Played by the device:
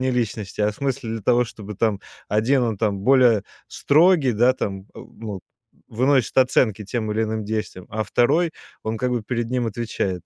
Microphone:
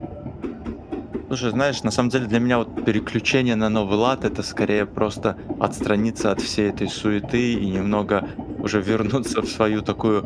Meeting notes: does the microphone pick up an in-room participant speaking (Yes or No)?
Yes